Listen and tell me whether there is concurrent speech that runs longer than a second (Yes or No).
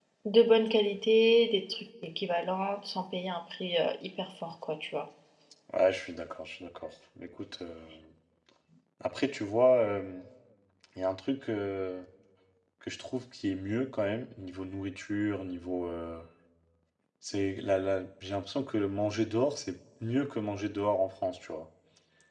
No